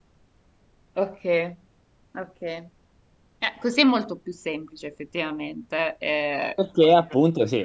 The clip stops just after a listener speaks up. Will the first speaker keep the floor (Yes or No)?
No